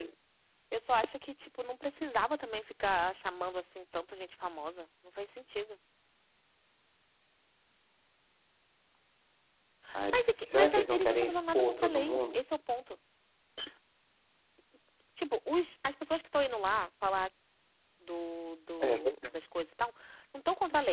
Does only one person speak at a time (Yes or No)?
No